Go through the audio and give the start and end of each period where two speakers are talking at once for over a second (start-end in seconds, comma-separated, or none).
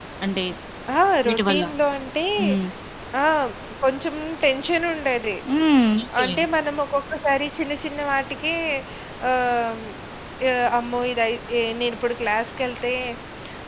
none